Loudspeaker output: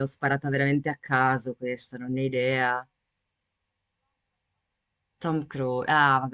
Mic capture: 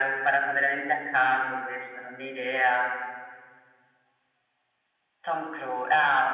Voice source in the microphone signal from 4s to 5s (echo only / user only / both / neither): neither